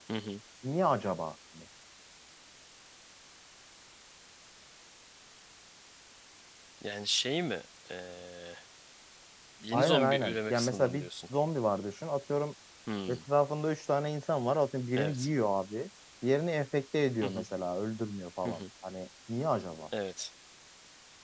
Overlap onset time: 9.7 s

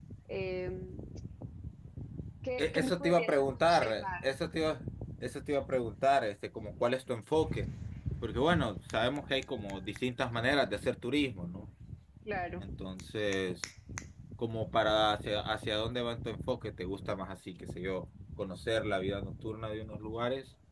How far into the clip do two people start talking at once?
2.6 s

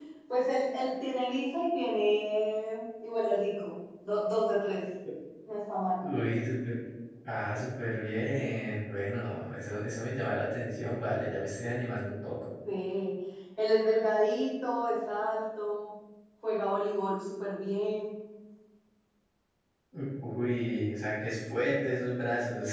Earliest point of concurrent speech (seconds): none

